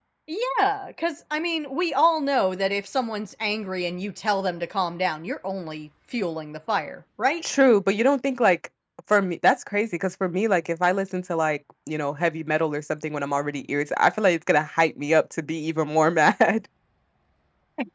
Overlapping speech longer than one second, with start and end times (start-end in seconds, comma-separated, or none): none